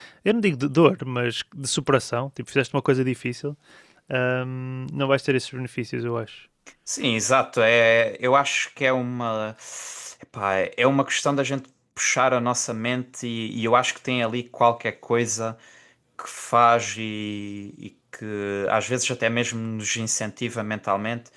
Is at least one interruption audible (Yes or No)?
No